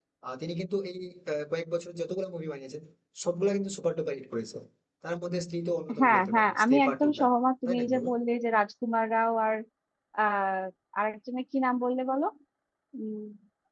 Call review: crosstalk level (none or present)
present